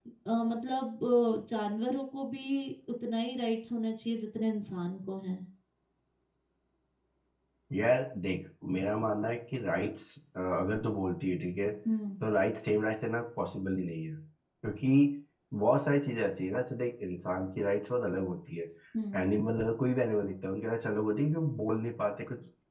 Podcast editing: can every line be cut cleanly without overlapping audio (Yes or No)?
Yes